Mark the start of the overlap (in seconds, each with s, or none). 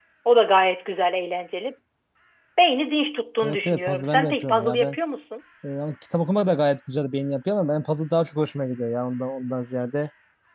3.4 s